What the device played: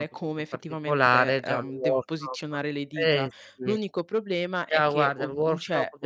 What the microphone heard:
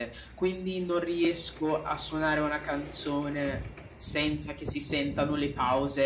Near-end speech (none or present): present